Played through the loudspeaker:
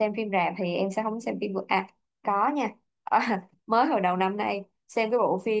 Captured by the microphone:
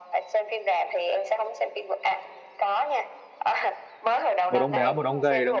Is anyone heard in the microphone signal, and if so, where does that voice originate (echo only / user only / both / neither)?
both